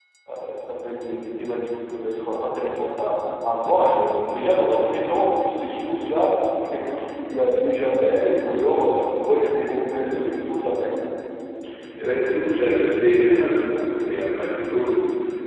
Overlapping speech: No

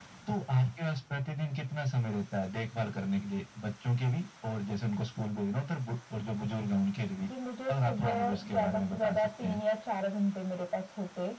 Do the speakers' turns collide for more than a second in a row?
Yes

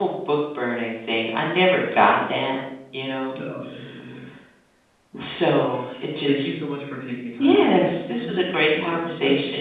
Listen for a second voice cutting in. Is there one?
Yes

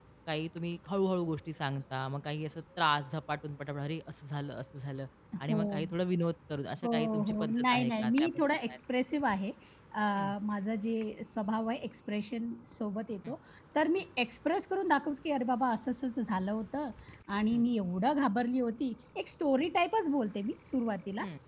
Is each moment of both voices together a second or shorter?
No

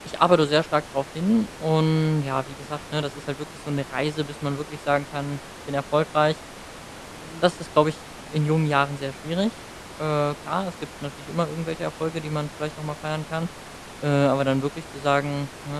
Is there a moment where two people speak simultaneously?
No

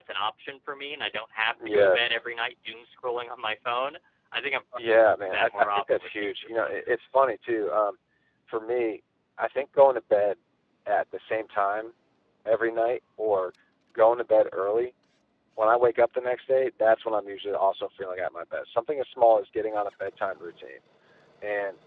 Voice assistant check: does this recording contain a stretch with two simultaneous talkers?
Yes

